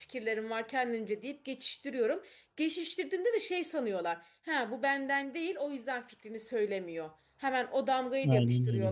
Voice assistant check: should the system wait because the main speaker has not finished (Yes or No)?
Yes